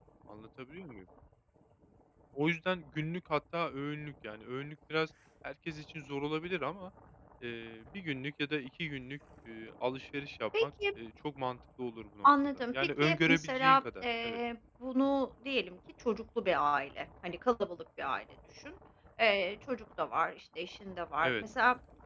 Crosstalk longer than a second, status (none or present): present